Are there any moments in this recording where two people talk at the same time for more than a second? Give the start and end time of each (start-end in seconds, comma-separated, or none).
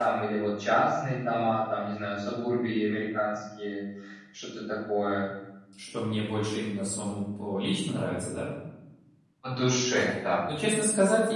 none